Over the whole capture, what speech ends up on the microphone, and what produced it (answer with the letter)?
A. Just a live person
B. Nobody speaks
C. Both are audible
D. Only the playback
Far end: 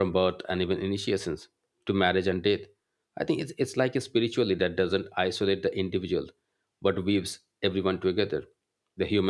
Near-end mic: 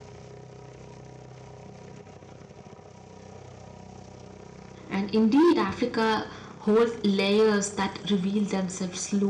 A